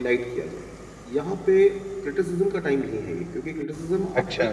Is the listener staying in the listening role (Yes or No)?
Yes